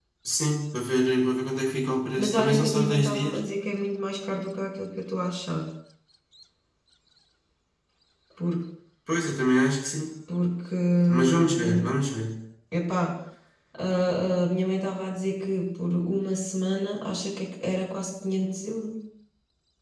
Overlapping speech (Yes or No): Yes